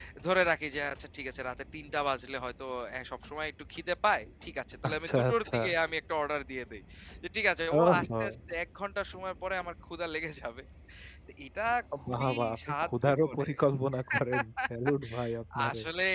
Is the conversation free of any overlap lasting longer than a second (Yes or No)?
No